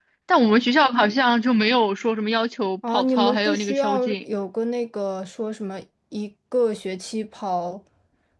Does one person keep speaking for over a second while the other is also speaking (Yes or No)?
Yes